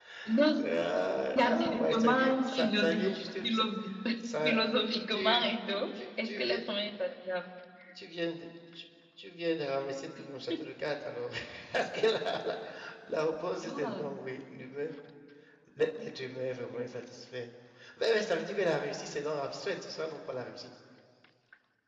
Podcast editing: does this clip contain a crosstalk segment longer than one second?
Yes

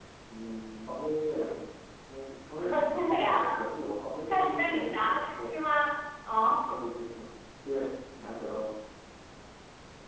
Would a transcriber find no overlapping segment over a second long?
No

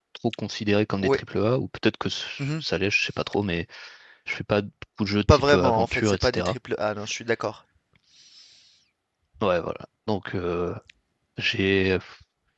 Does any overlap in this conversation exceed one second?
Yes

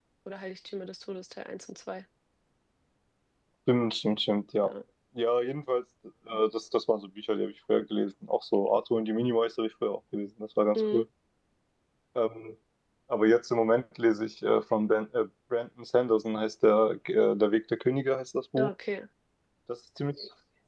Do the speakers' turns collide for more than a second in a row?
No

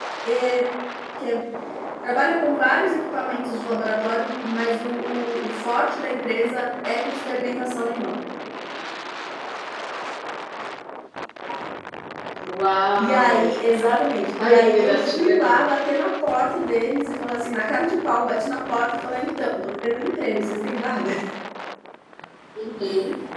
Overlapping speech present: Yes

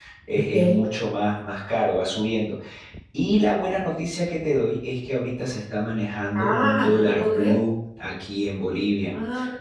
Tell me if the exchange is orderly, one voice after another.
No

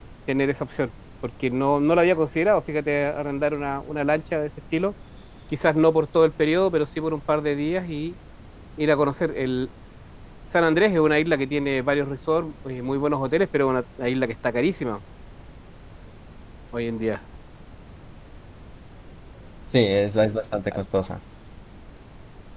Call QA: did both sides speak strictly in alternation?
Yes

